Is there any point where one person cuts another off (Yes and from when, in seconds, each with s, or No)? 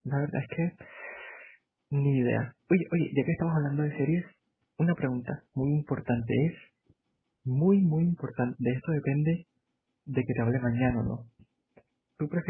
No